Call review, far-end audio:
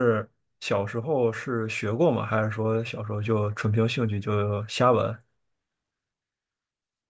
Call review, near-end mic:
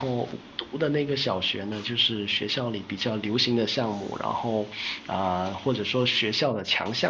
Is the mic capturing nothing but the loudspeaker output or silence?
No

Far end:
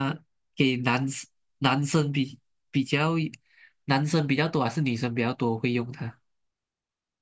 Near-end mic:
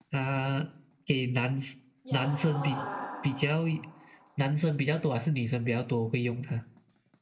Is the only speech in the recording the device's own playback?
No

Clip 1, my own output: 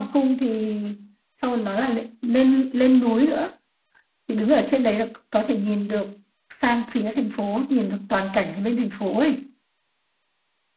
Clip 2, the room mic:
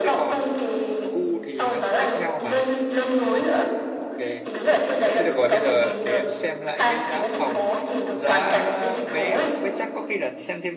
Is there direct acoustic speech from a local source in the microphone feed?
Yes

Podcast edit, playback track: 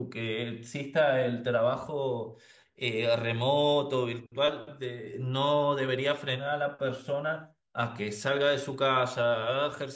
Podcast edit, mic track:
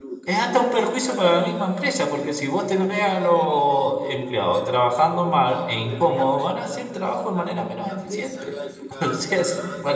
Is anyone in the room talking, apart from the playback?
Yes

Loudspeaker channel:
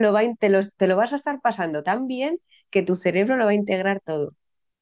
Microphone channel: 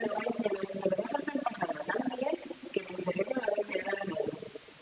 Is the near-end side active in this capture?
No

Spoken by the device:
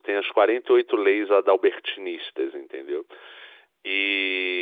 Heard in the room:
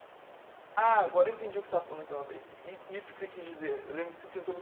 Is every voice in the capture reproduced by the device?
No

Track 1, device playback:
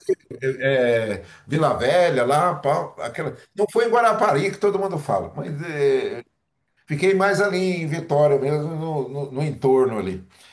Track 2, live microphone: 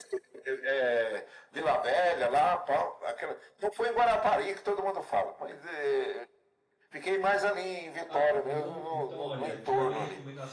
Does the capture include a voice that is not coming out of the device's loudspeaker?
Yes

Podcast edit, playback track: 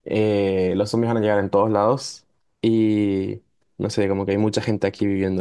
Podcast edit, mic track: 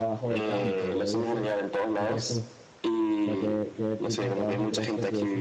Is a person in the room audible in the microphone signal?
Yes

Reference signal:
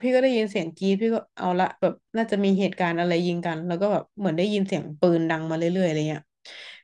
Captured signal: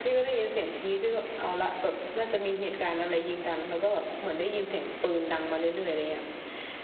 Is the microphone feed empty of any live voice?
Yes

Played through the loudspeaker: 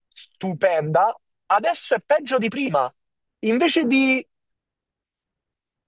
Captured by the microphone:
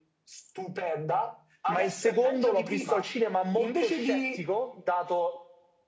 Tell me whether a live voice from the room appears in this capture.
Yes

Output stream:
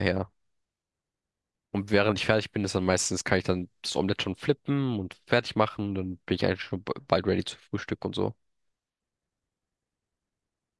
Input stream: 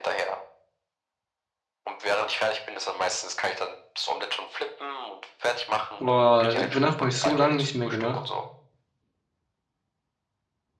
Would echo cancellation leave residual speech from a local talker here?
Yes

